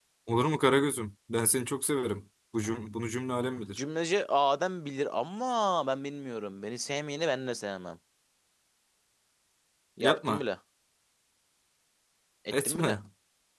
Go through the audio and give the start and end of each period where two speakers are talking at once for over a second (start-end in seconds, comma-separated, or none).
none